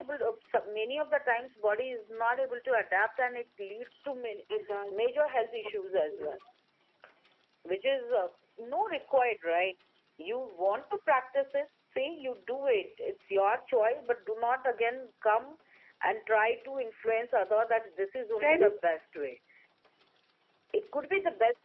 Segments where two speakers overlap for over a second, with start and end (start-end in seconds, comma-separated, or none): none